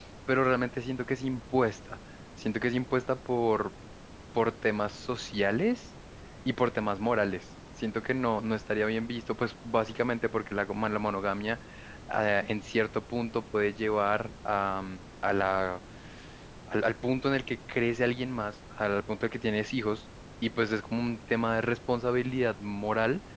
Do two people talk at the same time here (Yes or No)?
No